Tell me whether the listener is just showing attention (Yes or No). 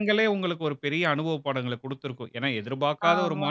Yes